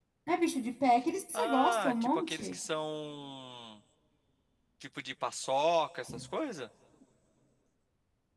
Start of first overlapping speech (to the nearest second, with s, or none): 1 s